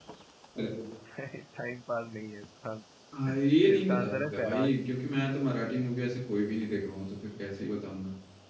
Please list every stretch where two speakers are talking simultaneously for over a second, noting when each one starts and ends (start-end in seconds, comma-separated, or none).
3.3-4.7